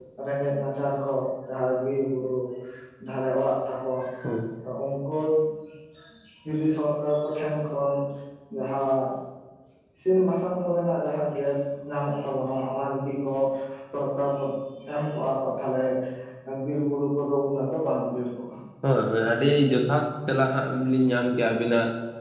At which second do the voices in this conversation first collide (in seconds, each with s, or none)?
none